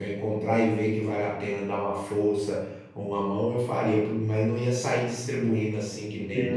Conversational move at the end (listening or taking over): taking over